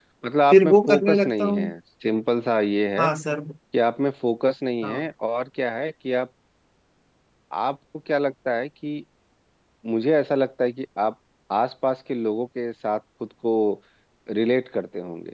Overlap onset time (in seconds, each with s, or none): 0.5 s